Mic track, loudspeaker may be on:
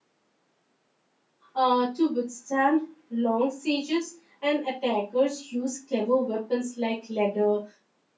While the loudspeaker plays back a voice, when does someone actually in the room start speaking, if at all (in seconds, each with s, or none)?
1.5 s